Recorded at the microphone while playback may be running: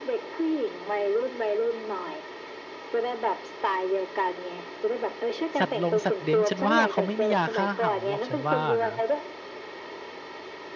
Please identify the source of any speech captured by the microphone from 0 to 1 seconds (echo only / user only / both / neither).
echo only